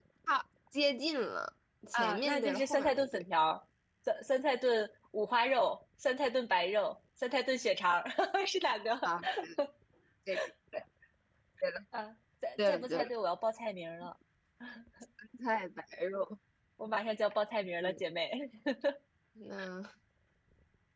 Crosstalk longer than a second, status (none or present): present